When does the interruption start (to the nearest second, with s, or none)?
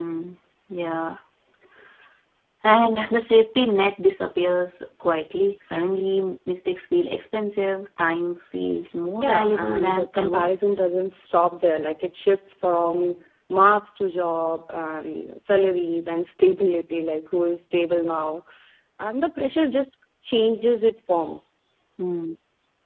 9 s